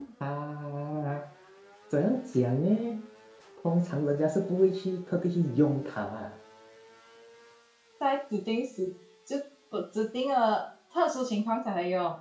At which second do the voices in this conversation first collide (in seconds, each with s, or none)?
none